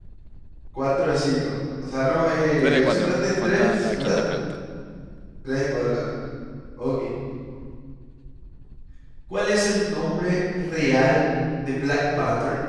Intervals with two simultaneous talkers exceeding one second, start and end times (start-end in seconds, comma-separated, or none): 2.6-4.2